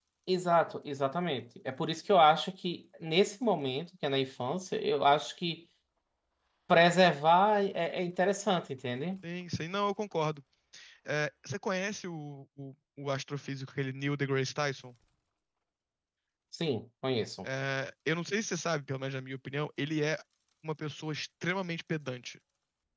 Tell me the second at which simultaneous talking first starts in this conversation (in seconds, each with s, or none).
none